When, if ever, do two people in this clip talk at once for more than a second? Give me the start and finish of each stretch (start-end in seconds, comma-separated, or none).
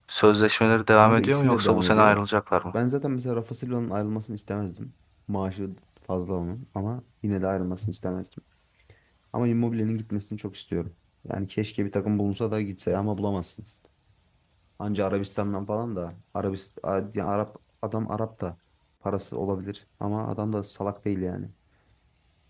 1.0-2.2